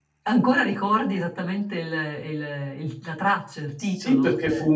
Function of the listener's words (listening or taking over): taking over